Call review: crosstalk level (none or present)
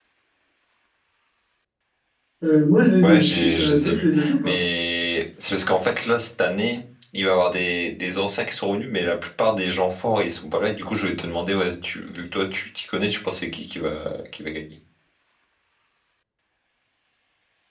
present